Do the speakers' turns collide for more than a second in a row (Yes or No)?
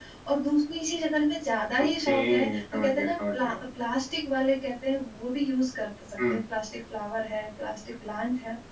Yes